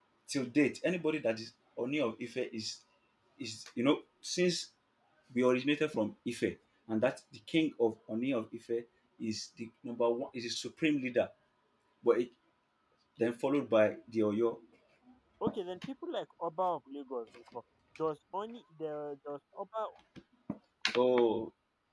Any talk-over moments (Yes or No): No